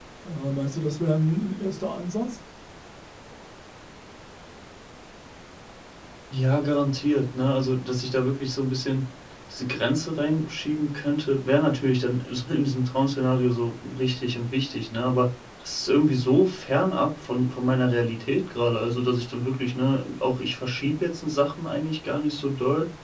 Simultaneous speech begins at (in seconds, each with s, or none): none